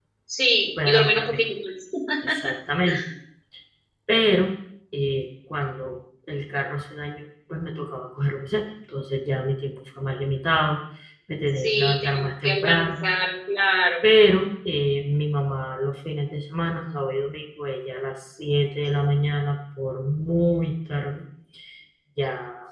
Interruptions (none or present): present